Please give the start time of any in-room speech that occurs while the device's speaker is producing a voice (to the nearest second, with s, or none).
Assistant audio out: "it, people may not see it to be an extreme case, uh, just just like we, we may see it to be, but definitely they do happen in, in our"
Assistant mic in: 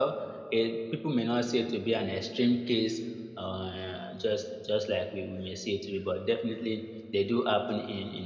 none